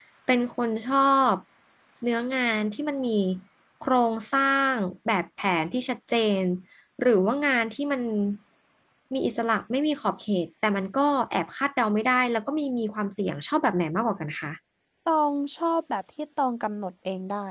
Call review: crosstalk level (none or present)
none